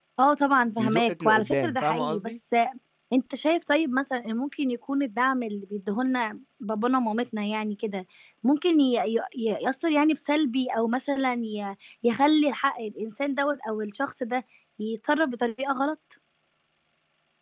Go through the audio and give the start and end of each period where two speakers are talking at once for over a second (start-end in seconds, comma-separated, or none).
0.8-2.3